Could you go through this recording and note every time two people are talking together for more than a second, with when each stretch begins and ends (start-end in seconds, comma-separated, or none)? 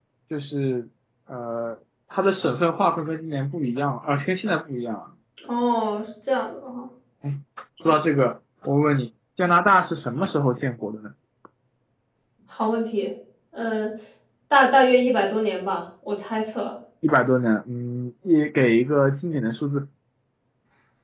none